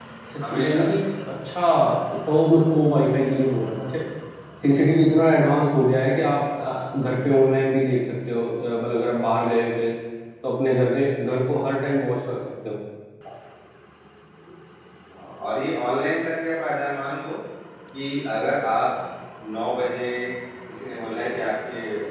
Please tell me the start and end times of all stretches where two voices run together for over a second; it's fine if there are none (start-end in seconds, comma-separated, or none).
none